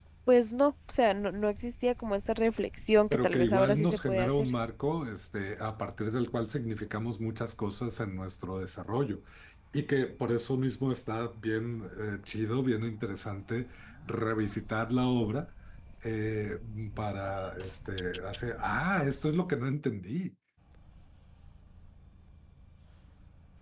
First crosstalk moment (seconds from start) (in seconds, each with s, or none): 3.1 s